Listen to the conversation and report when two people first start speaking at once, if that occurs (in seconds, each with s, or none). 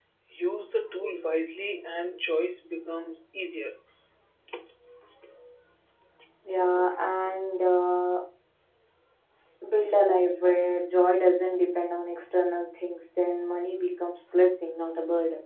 none